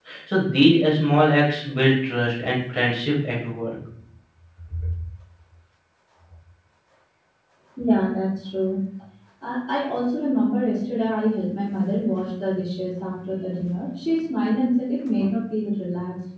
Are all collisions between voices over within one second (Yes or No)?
Yes